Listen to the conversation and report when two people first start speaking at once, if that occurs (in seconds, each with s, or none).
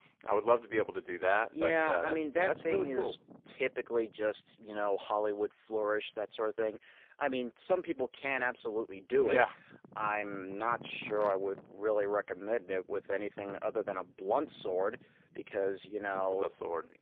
1.6 s